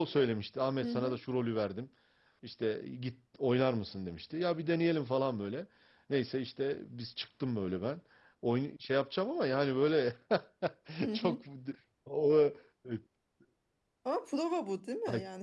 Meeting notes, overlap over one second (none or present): none